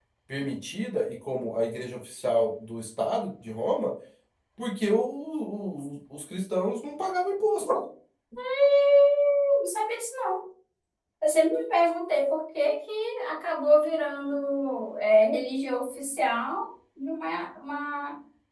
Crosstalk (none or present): none